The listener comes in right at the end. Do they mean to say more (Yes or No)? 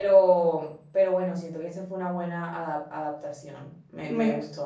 Yes